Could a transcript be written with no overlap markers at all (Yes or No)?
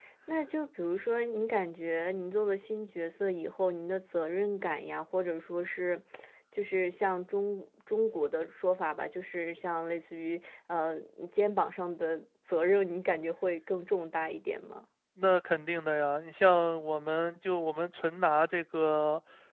Yes